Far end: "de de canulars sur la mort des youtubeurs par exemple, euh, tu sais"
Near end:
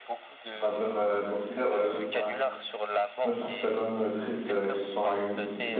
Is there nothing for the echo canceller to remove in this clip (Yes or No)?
No